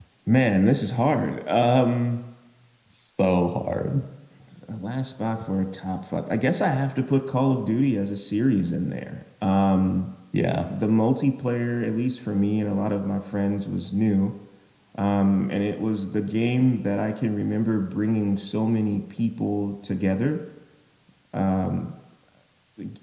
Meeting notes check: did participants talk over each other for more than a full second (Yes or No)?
No